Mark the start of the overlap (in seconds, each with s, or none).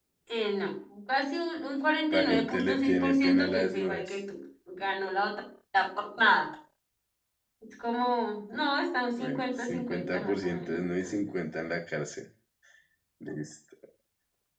2.1 s